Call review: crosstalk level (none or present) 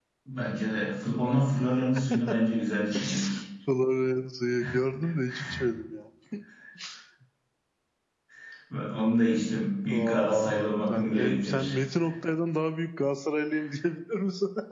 present